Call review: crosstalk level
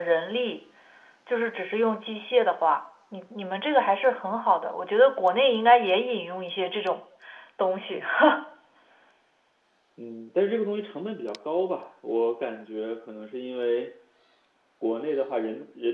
none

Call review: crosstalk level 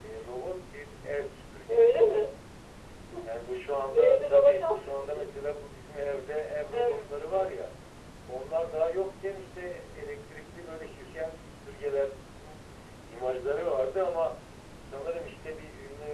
present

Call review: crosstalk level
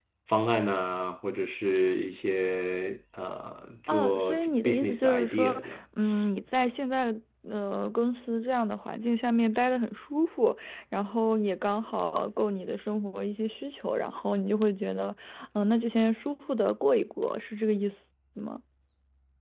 present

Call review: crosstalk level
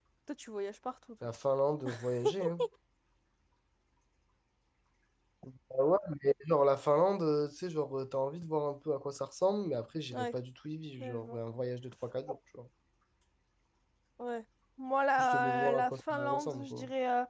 present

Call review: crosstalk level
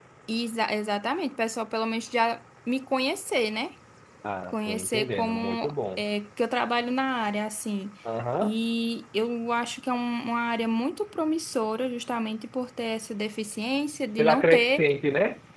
present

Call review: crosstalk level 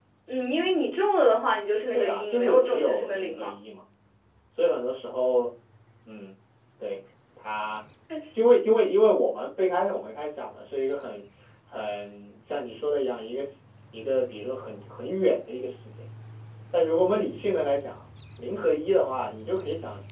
present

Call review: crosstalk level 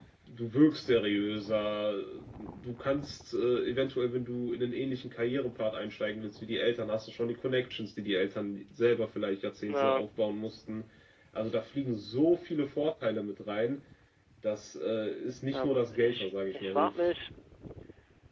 present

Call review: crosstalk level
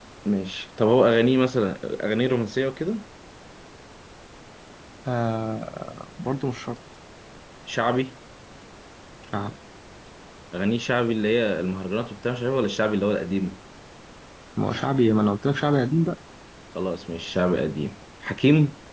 none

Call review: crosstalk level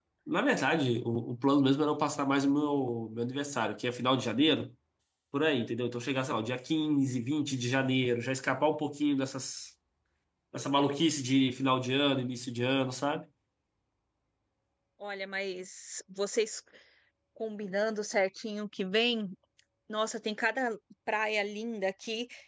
none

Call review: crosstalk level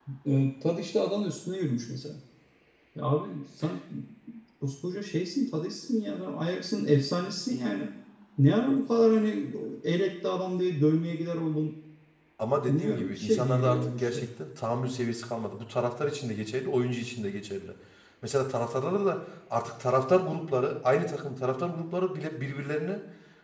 present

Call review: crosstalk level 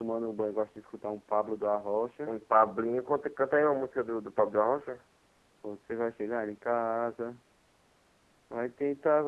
none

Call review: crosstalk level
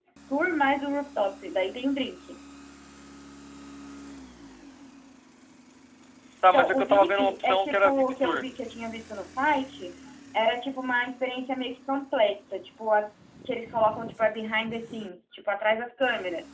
present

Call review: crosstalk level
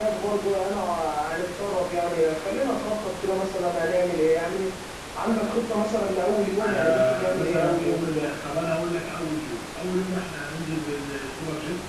present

